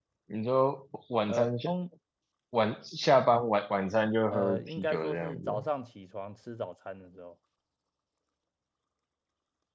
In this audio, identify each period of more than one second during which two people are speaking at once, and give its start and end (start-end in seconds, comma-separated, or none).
4.3-5.6